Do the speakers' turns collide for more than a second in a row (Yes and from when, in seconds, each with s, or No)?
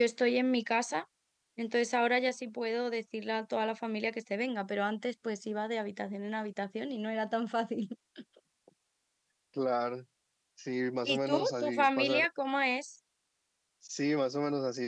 Yes, from 11.0 s